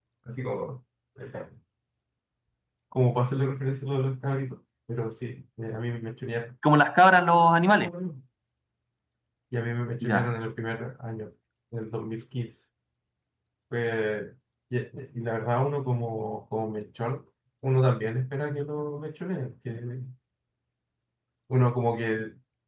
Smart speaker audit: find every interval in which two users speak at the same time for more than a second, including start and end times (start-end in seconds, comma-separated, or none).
none